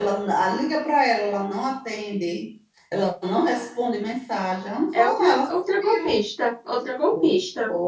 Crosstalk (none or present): present